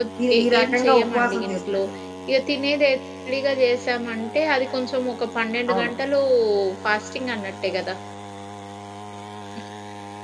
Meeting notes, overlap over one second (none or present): present